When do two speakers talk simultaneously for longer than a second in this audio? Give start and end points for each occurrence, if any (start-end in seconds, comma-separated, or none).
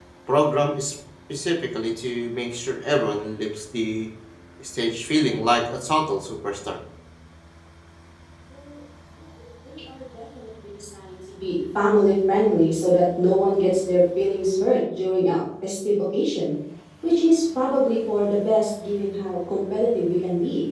none